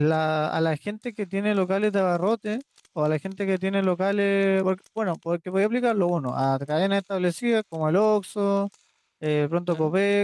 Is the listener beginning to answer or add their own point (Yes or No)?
No